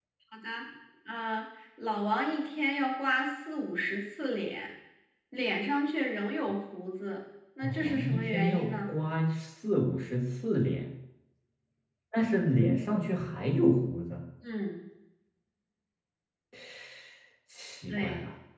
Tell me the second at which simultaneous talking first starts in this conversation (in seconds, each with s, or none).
7.6 s